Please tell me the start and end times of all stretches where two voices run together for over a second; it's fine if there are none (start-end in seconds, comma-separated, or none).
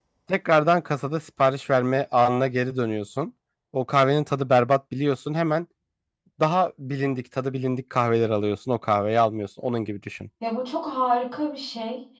none